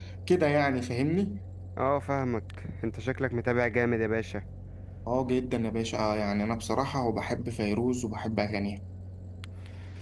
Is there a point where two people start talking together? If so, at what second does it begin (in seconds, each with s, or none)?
none